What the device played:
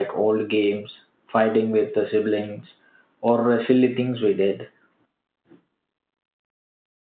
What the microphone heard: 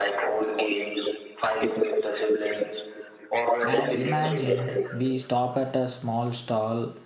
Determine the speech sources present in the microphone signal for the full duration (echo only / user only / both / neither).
both